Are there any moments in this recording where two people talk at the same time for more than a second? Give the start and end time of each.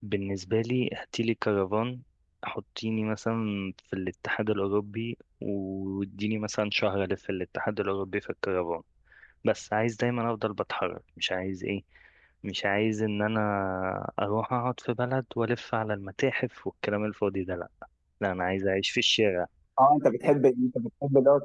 none

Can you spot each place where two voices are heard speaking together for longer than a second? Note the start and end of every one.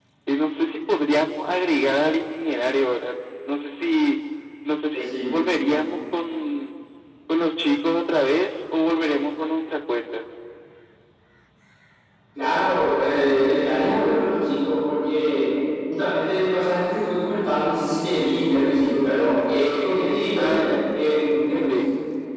none

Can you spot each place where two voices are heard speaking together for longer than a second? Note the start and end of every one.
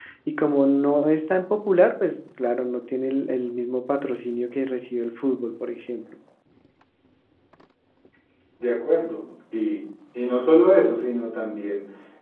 none

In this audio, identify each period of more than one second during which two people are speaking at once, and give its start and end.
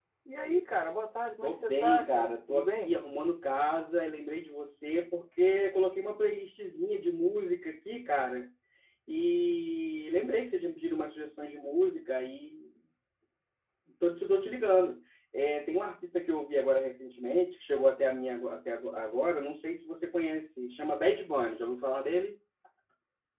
1.4-2.9

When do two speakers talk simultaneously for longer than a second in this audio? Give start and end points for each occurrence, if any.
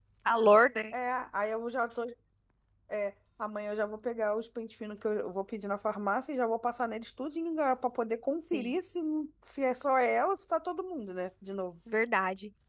none

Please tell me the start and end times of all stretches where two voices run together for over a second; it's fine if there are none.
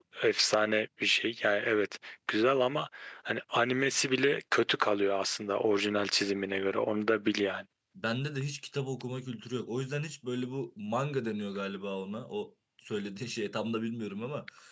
none

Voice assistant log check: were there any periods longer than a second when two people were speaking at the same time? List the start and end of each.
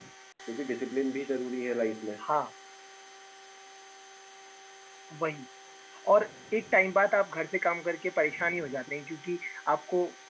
none

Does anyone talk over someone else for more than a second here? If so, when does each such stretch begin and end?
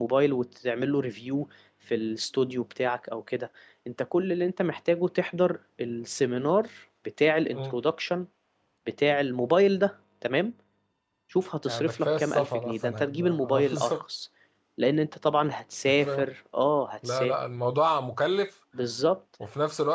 11.7-14.0

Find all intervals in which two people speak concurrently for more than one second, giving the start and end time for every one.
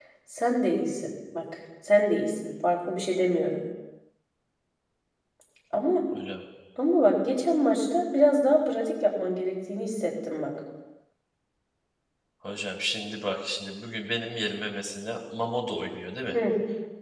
none

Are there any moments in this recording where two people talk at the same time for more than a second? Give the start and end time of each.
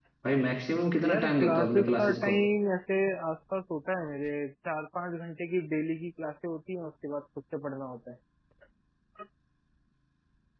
1.0-2.4

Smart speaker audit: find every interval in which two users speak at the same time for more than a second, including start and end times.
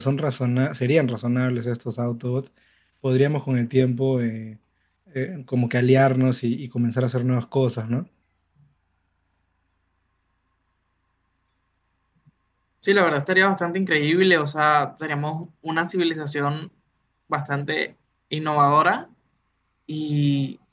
none

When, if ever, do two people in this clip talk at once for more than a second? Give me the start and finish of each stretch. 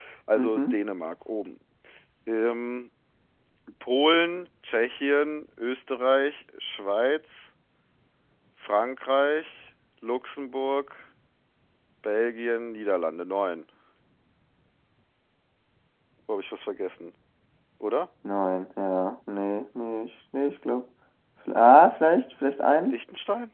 none

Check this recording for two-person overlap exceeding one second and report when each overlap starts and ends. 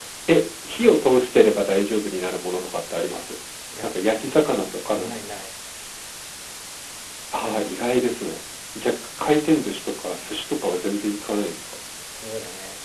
3.8-5.1

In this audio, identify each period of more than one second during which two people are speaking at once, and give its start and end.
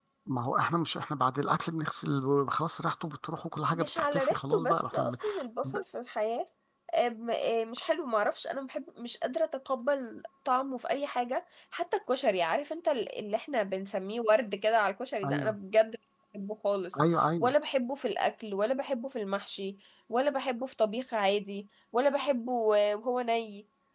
3.7-5.1

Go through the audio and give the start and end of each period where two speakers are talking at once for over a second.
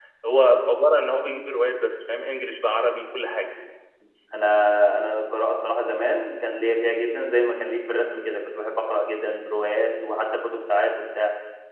none

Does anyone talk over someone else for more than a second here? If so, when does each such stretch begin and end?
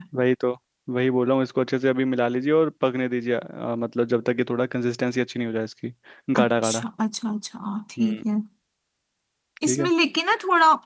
none

